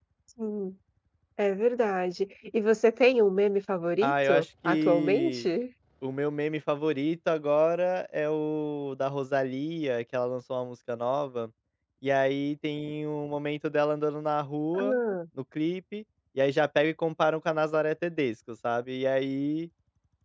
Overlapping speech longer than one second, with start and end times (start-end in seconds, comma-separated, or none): 4.0-5.5